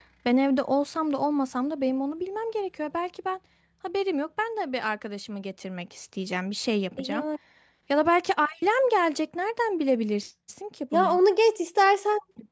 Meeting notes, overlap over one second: none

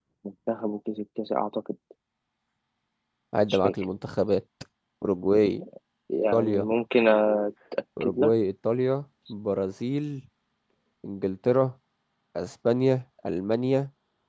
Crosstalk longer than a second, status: none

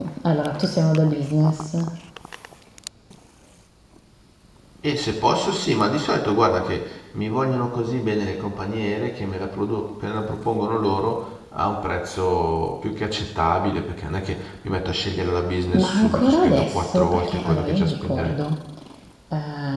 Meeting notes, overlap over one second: present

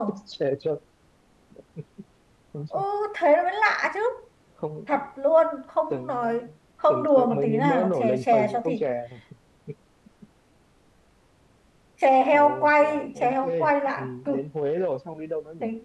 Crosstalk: present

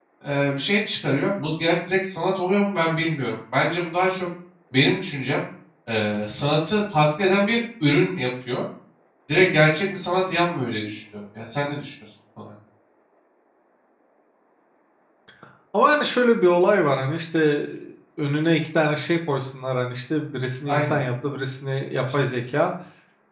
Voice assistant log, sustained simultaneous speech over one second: none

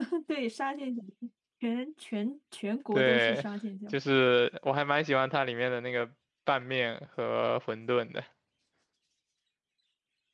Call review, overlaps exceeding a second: none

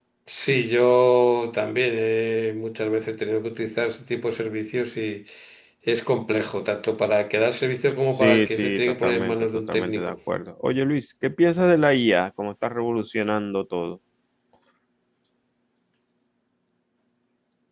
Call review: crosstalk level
present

